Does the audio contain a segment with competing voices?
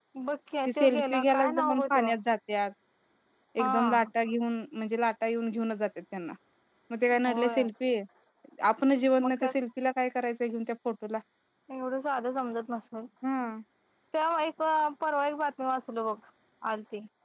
Yes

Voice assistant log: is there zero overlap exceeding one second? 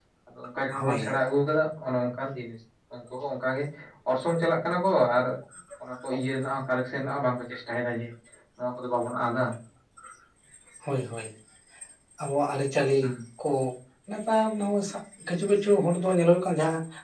Yes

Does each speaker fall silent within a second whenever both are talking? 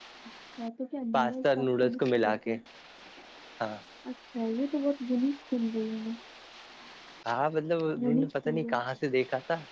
No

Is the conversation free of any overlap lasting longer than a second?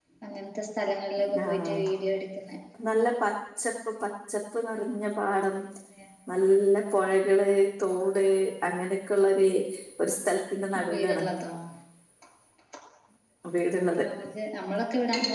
Yes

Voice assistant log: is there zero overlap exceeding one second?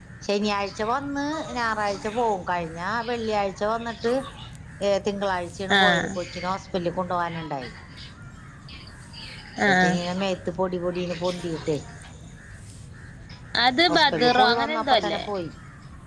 No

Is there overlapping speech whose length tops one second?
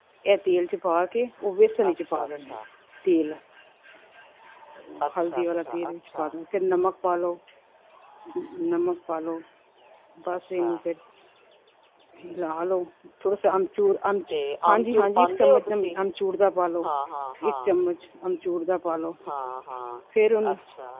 Yes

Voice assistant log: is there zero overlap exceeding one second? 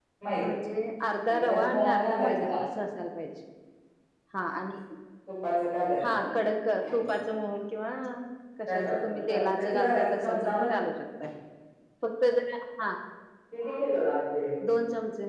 No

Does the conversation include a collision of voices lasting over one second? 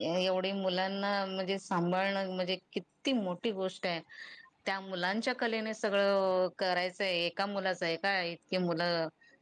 No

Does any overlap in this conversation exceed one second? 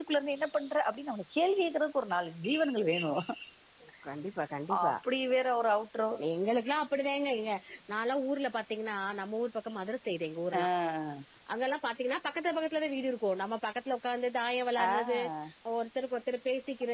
No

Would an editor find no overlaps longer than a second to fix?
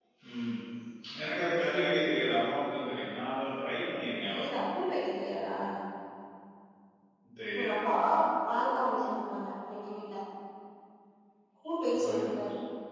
Yes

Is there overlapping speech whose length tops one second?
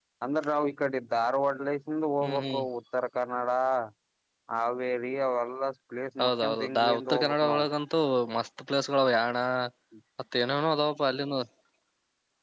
Yes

